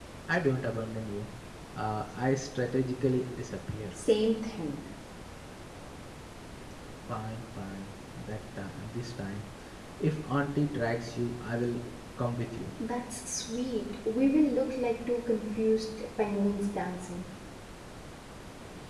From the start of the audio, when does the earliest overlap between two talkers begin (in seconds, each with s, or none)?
none